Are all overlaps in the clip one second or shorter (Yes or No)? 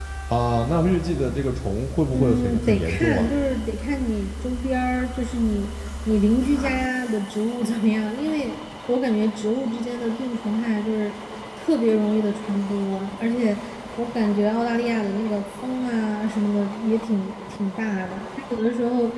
No